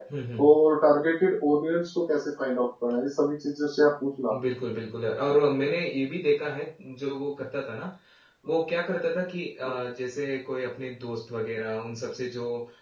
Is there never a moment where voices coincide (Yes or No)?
Yes